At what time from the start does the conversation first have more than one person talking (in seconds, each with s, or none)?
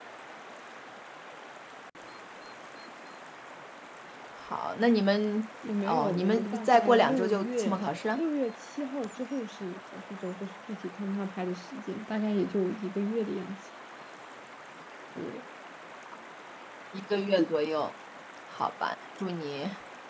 5.6 s